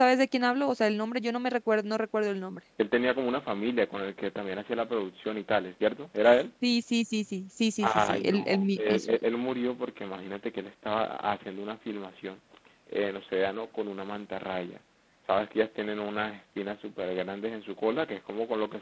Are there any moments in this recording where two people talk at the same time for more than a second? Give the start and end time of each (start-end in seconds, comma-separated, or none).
7.8-9.2